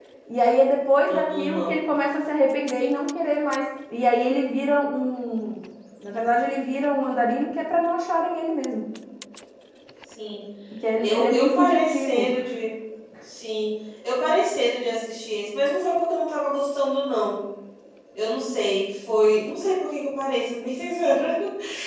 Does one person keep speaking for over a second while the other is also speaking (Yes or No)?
Yes